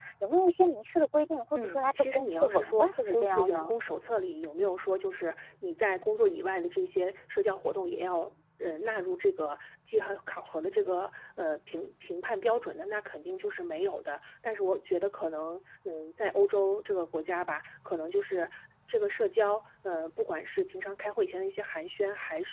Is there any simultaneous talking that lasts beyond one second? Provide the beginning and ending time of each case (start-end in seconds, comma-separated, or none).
1.6-3.7